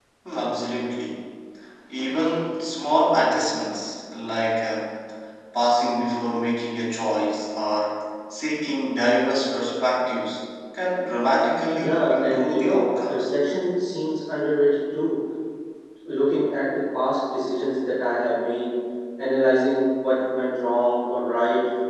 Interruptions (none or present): present